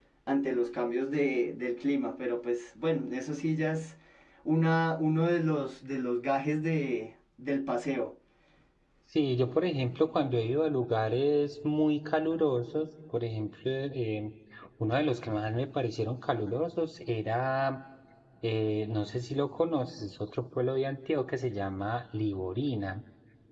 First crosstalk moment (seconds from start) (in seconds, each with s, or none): none